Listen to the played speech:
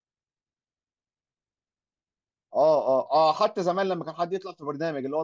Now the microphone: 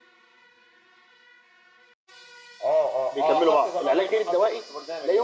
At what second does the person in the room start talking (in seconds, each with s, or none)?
3.1 s